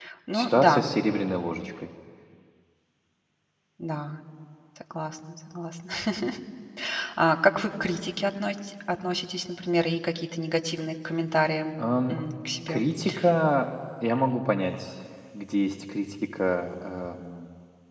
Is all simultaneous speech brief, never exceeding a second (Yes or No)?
Yes